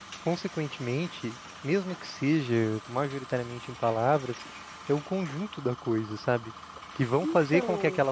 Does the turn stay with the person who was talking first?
Yes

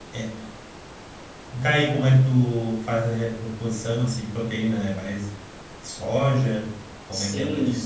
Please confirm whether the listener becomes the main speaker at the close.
Yes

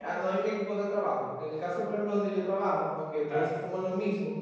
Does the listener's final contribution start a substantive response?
No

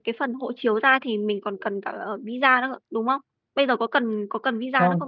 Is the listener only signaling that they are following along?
No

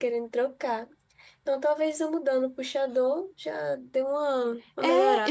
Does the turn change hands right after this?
Yes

